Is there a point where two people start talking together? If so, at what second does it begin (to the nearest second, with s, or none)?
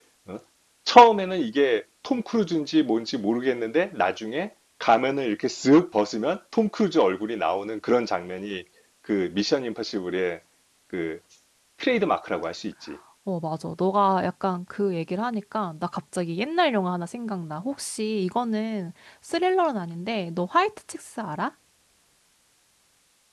none